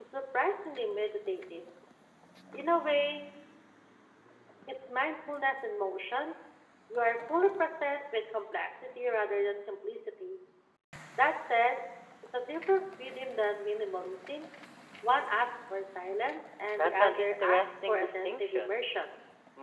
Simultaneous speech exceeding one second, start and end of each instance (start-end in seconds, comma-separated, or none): 16.8-18.8